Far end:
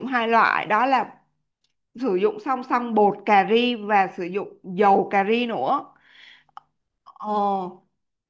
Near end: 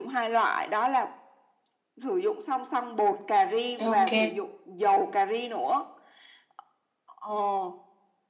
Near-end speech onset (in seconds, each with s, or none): 3.8 s